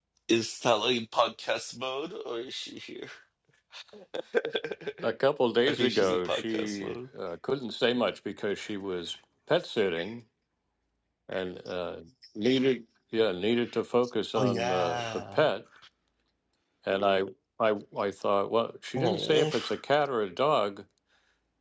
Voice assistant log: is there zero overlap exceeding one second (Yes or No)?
No